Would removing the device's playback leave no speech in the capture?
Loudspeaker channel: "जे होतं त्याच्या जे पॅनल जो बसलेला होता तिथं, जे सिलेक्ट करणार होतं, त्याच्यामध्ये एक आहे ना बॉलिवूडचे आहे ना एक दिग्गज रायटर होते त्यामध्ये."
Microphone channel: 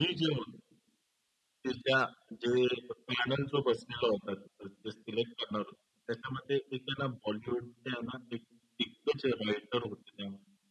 Yes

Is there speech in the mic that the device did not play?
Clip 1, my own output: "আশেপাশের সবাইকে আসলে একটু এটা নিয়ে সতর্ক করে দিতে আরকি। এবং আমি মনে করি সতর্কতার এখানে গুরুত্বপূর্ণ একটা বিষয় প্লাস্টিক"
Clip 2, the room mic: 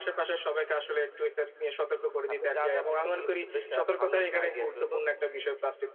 Yes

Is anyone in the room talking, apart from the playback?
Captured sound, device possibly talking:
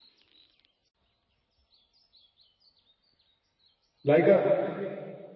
Yes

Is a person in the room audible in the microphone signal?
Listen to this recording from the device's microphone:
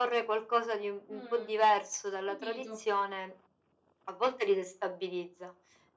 Yes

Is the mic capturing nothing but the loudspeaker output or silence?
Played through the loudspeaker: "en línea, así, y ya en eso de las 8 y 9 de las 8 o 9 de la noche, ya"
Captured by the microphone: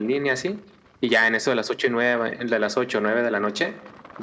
Yes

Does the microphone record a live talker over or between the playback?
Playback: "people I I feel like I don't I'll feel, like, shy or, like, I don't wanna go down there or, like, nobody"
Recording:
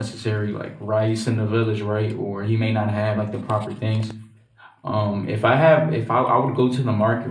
Yes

